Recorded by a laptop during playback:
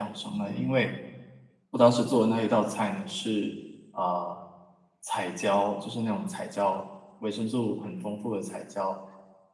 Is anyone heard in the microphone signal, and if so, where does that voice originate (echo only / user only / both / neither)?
echo only